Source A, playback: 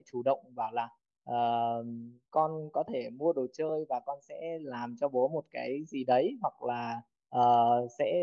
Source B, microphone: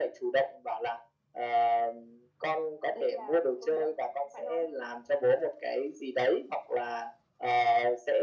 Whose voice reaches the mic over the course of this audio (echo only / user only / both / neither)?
both